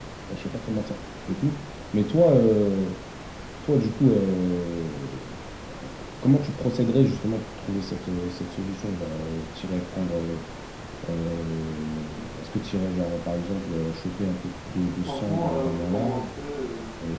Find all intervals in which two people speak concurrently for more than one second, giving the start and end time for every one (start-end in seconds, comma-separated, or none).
15.0-16.3